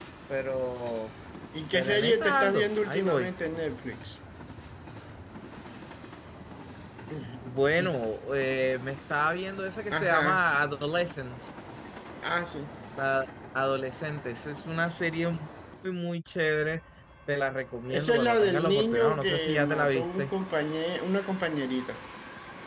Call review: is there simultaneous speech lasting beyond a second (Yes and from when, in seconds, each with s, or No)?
Yes, from 1.7 s